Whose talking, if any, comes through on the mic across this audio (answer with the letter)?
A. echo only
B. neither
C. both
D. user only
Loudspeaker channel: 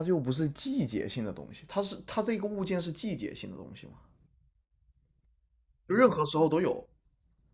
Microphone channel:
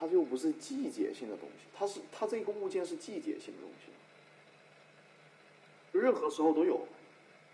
A